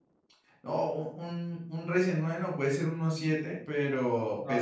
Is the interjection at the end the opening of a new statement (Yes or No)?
No